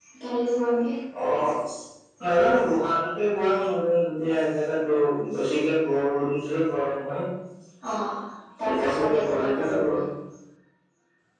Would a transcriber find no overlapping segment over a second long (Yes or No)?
No